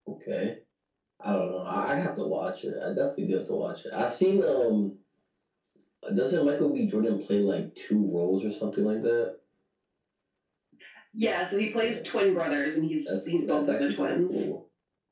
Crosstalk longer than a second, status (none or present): present